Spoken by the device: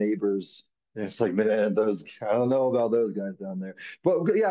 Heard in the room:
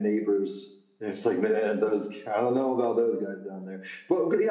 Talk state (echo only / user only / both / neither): echo only